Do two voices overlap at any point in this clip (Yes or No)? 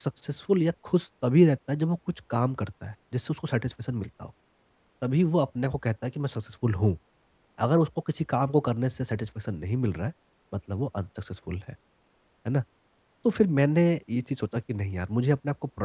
No